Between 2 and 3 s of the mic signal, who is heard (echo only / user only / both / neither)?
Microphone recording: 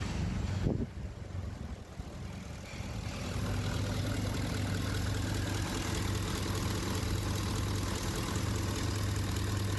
neither